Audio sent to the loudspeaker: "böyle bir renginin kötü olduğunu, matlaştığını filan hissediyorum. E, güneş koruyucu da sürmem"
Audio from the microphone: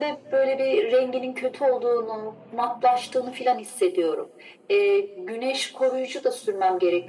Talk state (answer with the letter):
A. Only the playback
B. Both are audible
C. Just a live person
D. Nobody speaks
A